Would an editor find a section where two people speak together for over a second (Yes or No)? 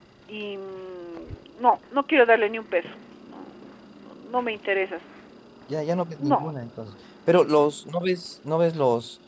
No